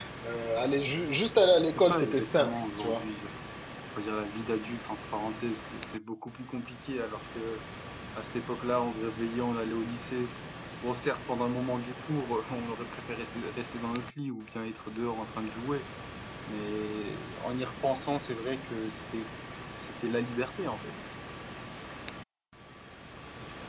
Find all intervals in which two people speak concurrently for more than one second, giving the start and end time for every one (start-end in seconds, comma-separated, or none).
1.8-3.0